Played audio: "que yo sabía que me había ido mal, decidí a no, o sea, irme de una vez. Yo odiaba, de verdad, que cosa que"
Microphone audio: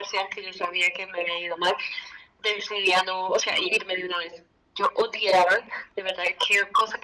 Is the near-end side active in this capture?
No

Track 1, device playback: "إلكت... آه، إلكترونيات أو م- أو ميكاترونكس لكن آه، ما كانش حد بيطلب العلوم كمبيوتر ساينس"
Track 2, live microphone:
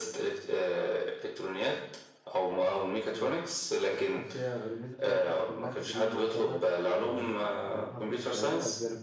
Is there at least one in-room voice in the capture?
Yes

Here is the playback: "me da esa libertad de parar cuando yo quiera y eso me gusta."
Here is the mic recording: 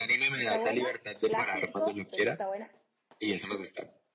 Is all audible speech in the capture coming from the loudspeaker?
No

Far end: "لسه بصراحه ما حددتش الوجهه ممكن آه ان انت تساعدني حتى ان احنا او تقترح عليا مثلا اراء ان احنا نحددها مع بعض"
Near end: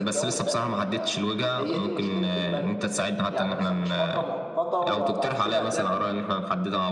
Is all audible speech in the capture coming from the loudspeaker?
No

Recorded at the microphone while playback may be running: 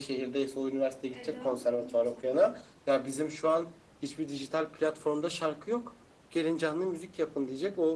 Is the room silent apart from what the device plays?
No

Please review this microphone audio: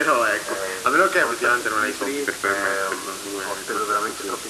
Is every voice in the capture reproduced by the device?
Yes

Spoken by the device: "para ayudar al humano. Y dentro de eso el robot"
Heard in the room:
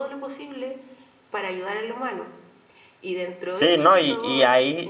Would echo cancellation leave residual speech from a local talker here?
Yes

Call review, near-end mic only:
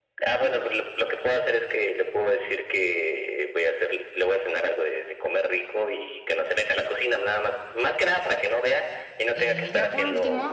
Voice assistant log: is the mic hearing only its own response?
No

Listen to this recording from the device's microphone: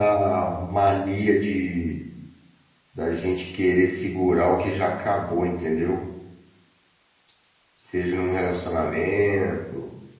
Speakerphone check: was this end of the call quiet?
No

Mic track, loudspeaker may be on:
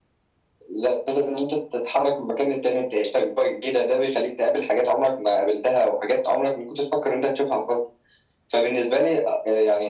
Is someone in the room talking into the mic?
No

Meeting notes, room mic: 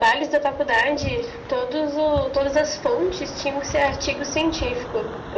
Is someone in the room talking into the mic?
No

